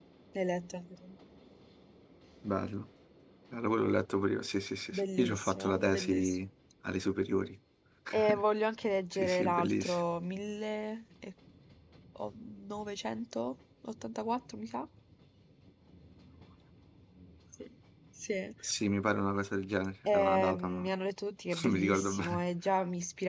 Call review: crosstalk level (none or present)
present